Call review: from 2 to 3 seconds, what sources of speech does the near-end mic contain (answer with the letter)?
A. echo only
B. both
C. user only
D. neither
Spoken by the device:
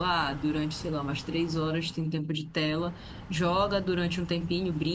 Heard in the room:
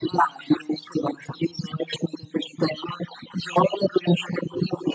A